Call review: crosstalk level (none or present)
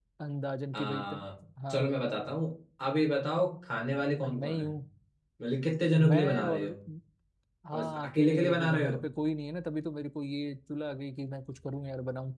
present